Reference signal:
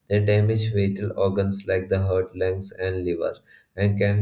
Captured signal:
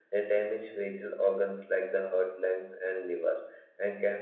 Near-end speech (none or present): none